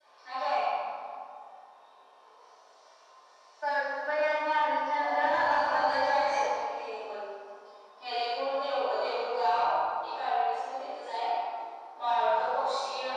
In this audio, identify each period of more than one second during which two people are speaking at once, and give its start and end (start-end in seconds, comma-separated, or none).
5.0-6.4